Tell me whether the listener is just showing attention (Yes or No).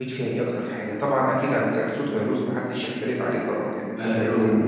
Yes